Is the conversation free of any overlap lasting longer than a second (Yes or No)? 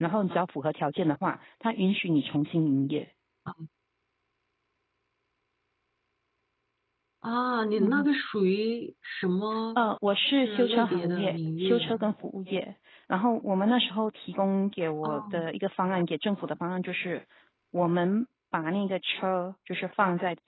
No